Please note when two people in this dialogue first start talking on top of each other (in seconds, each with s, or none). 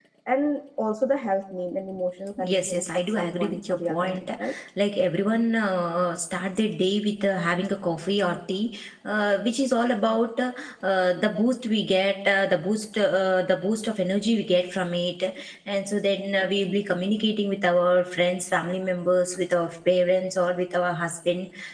2.4 s